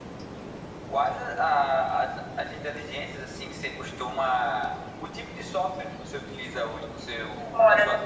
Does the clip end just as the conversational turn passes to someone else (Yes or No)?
Yes